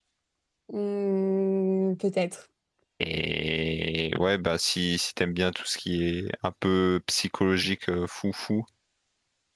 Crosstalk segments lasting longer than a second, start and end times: none

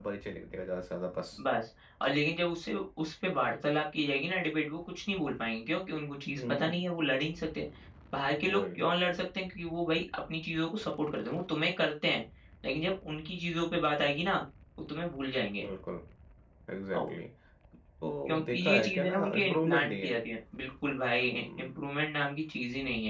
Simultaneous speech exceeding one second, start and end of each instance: 18.3-20.1

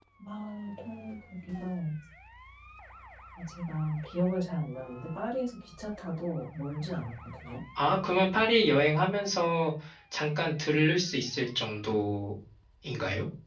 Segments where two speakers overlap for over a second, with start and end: none

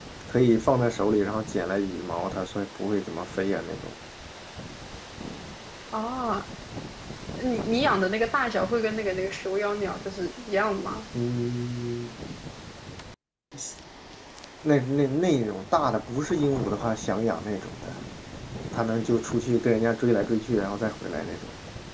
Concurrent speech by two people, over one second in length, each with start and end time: none

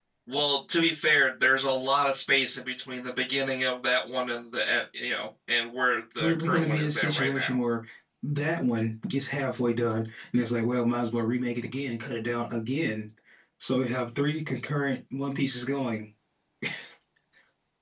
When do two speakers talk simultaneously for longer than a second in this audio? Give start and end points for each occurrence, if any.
6.2-7.5

